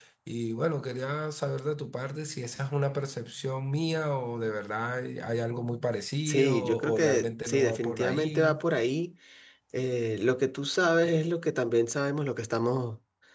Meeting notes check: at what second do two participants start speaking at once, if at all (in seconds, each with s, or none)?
6.3 s